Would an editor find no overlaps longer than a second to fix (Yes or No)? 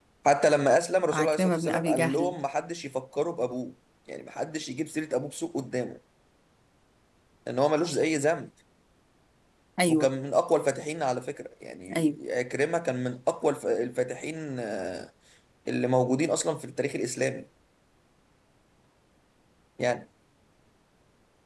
No